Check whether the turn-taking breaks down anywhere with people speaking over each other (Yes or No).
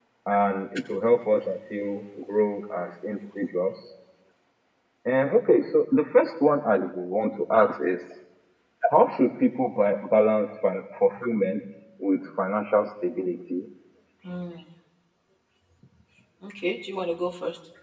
No